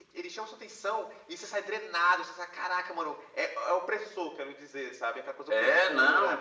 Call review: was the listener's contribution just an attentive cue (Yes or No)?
No